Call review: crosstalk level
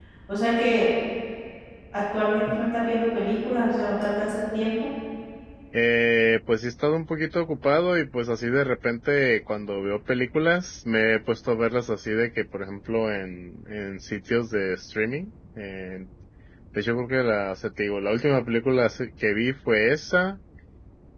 none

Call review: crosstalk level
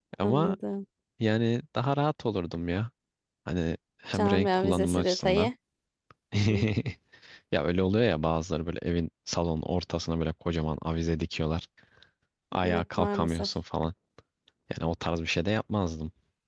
present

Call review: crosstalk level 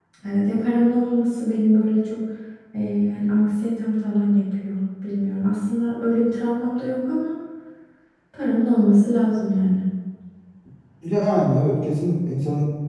none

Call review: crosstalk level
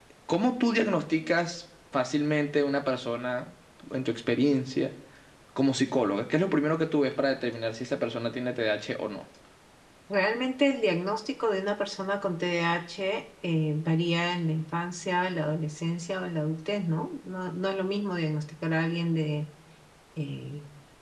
none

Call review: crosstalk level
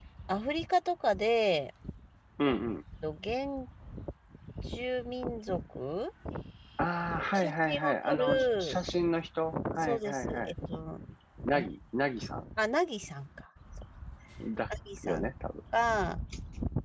present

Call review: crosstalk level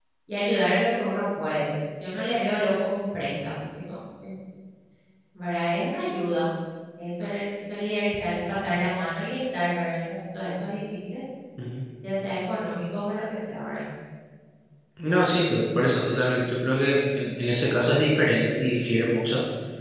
none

